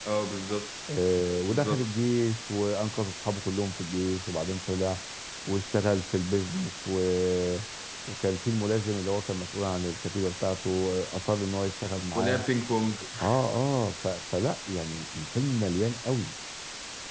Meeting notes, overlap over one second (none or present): none